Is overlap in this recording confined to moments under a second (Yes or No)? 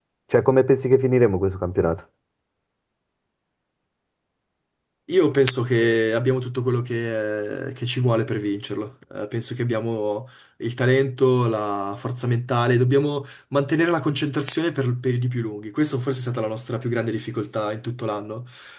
Yes